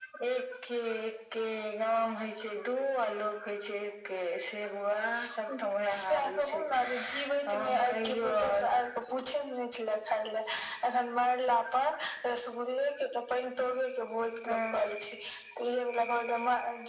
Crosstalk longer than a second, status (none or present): present